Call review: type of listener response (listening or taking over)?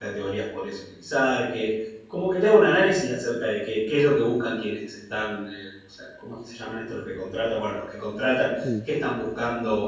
listening